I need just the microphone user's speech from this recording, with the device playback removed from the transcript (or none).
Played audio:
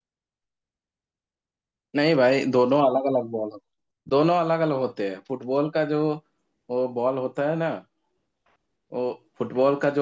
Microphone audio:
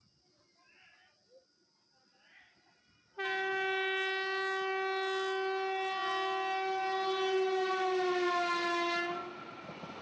none